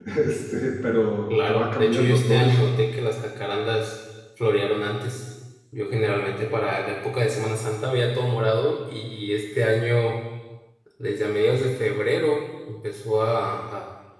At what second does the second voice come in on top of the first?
1 s

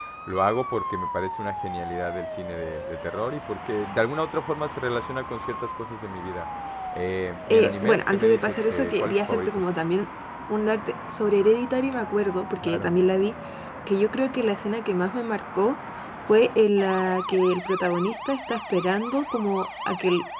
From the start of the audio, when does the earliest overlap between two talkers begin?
7 s

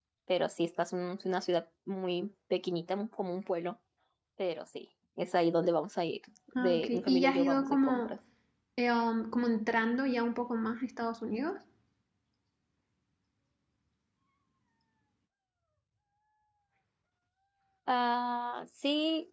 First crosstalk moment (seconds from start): 7 s

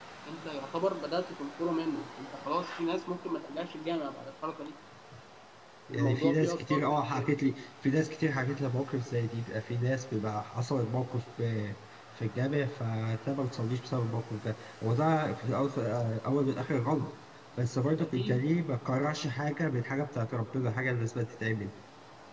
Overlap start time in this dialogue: 6 s

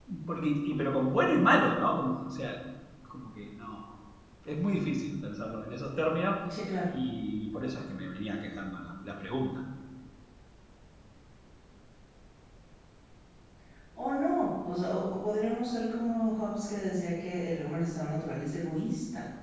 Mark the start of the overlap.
none

